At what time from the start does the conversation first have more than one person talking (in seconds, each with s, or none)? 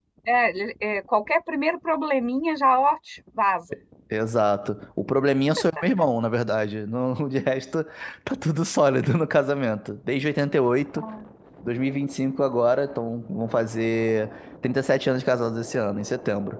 none